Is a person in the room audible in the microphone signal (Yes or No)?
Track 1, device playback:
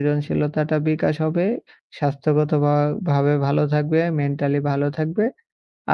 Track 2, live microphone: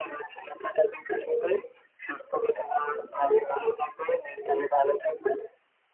No